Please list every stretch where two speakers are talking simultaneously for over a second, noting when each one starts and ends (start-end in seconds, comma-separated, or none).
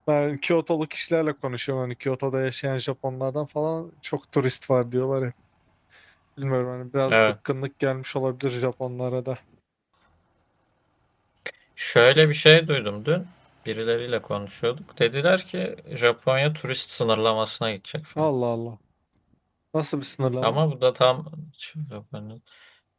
none